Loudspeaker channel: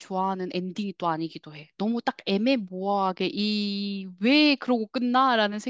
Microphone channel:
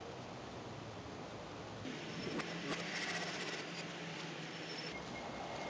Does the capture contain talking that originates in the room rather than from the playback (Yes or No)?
No